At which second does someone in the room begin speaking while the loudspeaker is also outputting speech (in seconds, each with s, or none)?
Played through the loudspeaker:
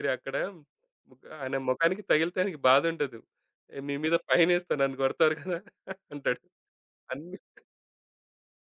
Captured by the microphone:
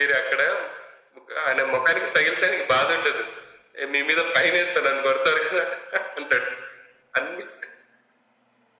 none